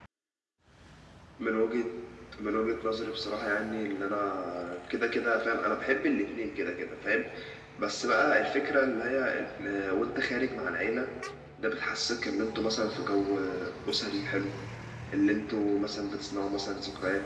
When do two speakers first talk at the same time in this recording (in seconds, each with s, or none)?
none